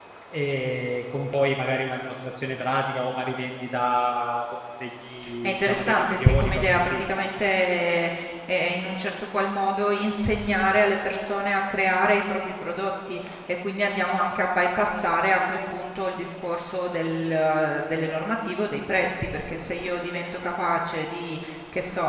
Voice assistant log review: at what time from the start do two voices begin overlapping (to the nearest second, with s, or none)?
5 s